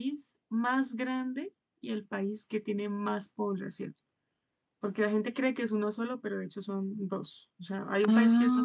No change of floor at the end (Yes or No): Yes